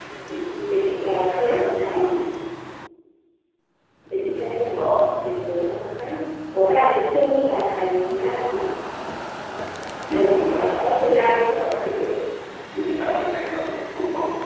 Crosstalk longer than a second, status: present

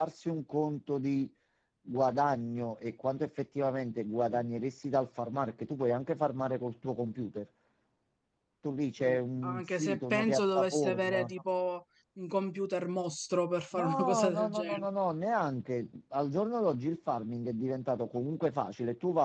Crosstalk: present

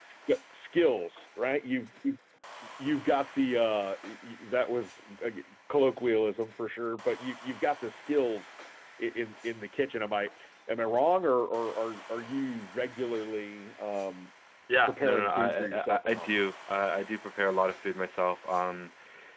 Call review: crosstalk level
present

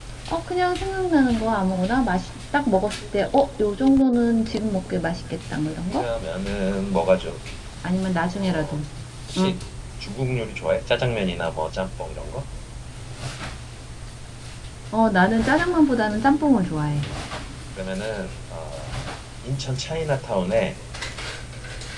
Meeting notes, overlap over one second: none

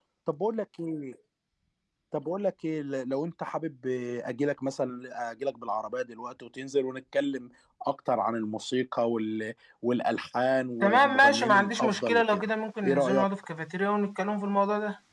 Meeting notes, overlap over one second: present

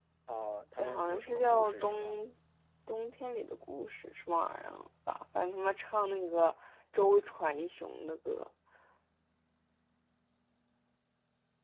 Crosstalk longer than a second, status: present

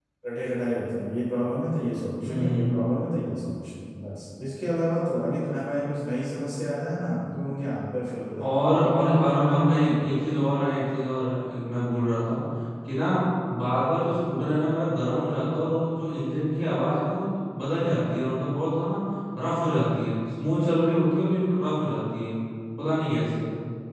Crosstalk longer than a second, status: present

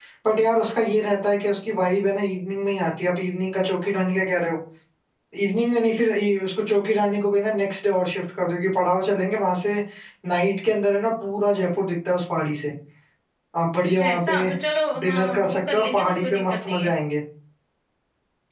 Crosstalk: present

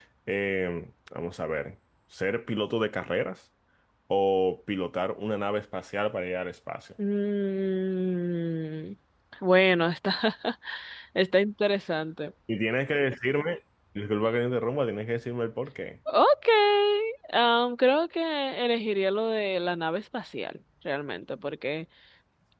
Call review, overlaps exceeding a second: none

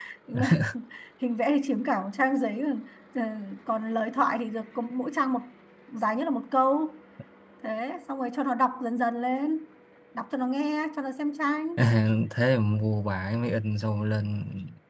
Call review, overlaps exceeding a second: none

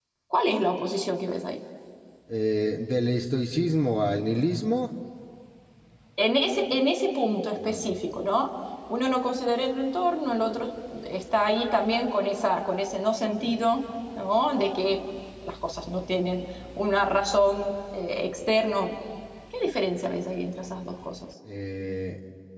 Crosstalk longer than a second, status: none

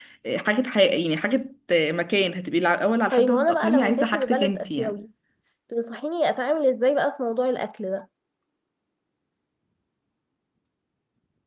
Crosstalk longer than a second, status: present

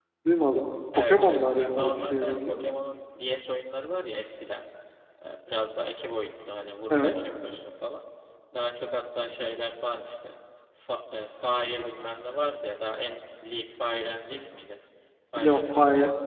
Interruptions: present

